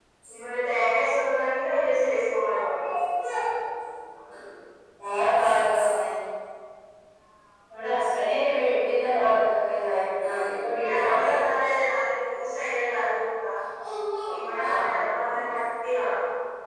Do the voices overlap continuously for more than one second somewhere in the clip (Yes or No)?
No